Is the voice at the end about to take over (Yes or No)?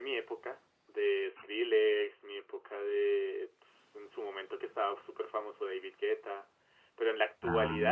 No